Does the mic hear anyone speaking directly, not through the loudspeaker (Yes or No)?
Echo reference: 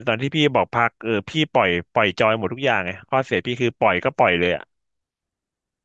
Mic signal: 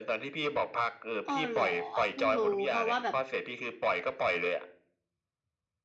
Yes